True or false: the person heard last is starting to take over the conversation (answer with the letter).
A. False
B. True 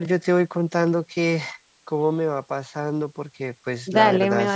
B